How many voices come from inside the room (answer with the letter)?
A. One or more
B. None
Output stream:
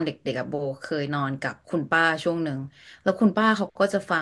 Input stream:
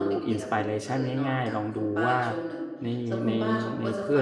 A